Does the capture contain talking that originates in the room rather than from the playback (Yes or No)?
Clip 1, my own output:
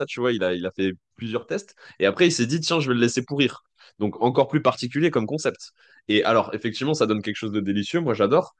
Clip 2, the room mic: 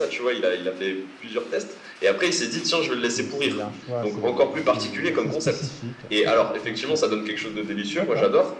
Yes